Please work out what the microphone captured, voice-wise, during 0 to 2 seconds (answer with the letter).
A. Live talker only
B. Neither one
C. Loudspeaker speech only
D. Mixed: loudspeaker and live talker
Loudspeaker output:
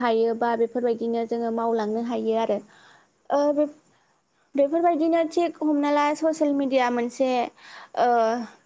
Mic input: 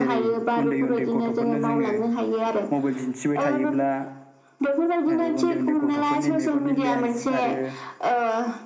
D